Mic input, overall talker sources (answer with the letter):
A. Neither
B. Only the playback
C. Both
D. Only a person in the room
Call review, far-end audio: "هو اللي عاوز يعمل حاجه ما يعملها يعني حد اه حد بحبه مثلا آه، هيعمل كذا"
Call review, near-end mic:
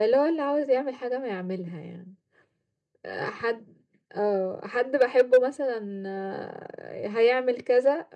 B